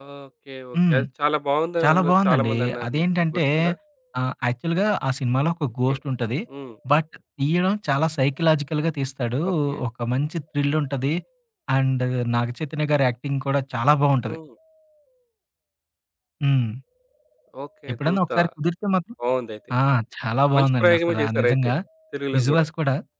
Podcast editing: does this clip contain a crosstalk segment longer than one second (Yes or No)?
Yes